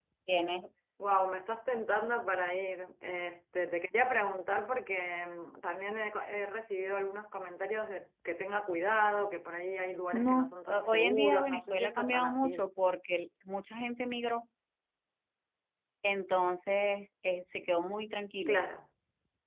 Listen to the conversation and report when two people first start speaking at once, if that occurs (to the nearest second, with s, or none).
10 s